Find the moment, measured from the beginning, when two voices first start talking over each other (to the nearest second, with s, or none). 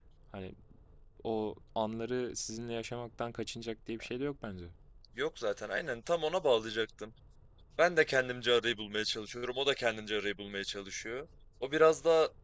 none